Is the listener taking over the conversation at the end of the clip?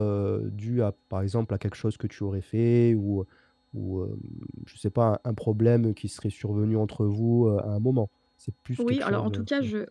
Yes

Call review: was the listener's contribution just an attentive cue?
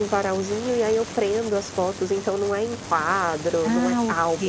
No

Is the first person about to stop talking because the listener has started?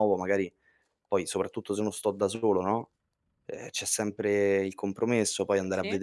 No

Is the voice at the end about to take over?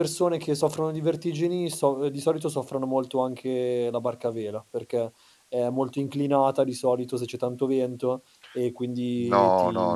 Yes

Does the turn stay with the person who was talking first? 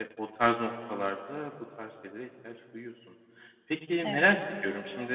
Yes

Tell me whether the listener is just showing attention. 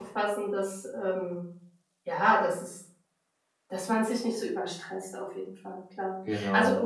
Yes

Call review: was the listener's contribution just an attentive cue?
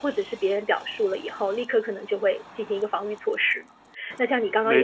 No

